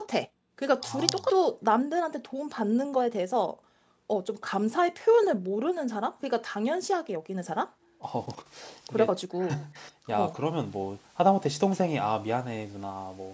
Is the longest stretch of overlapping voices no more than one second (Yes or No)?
Yes